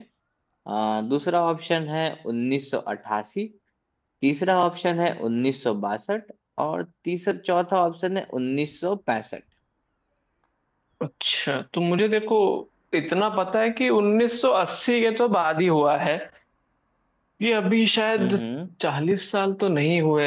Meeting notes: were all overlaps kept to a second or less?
Yes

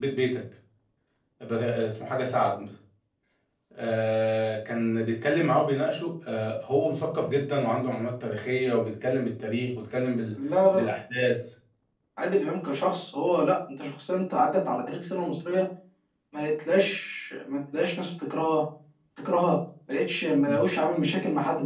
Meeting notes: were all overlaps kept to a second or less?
Yes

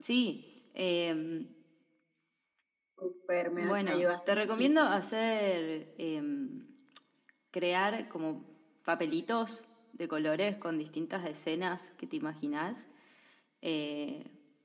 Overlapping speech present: Yes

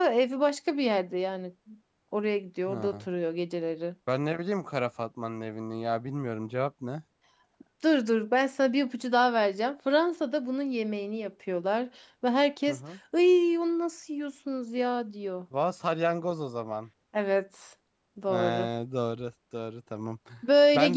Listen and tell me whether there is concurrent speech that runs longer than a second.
No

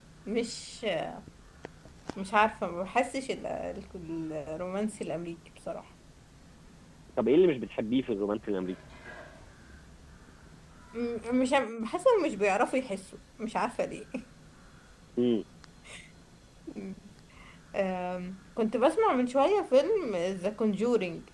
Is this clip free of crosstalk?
Yes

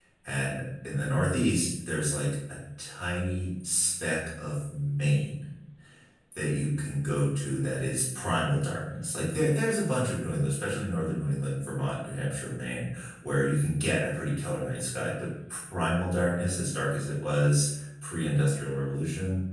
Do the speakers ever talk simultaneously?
No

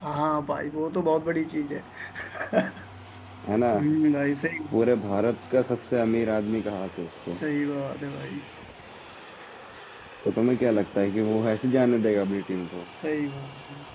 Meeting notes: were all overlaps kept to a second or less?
Yes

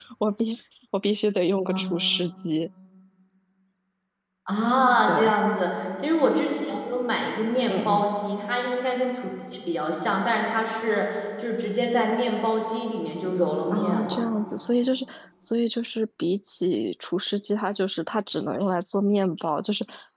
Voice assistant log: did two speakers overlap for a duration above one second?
No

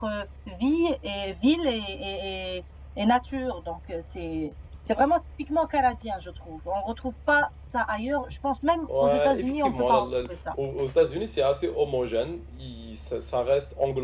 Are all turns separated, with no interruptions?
No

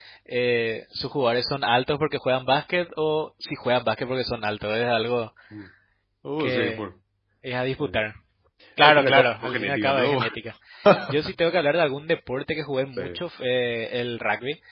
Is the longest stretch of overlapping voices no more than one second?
No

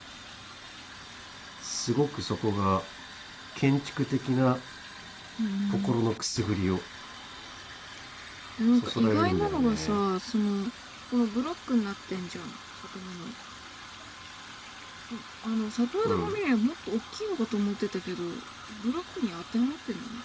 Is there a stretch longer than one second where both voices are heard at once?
Yes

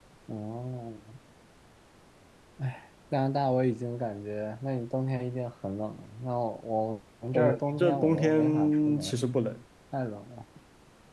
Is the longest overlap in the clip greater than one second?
Yes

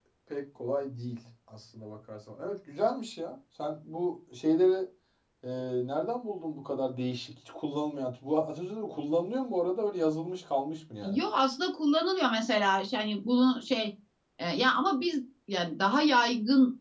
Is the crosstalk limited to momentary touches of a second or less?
Yes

